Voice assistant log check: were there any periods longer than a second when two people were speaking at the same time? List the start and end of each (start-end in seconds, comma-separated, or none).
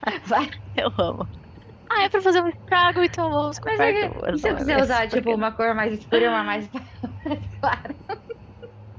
3.6-5.4